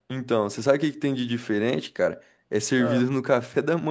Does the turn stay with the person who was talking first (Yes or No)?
Yes